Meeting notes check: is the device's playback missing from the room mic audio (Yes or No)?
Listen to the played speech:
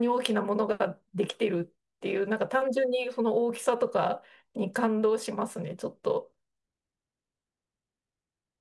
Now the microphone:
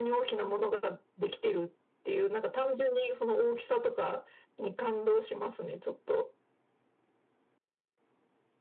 No